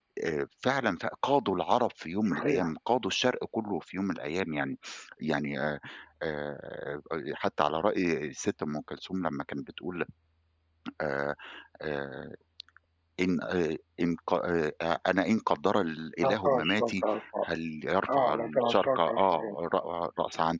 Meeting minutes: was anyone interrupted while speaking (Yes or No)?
Yes